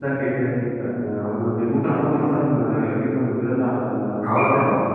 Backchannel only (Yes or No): No